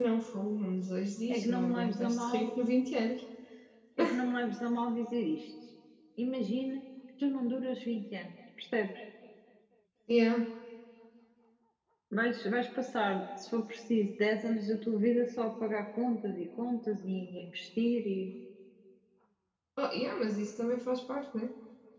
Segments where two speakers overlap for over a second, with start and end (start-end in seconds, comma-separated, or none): 1.3-2.5